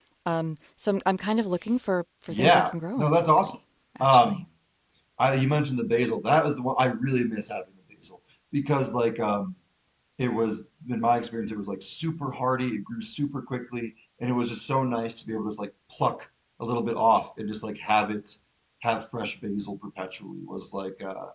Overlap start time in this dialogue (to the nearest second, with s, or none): 2 s